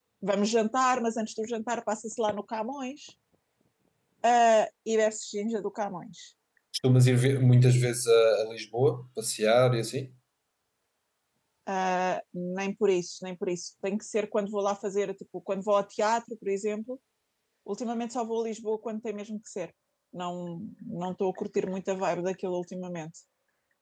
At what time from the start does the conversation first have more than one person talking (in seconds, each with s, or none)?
none